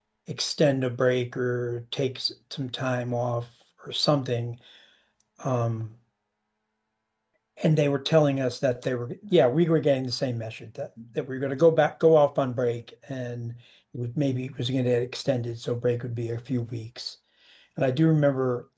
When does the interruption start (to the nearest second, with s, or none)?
none